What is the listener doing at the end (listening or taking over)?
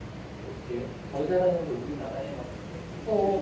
taking over